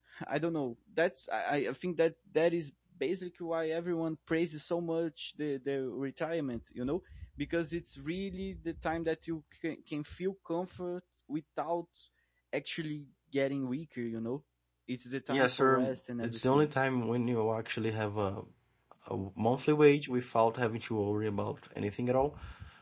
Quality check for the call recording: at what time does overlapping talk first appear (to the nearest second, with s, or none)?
15 s